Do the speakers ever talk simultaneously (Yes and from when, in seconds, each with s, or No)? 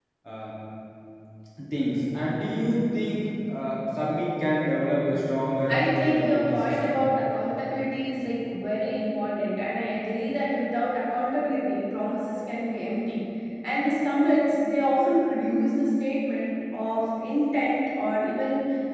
Yes, from 5.7 s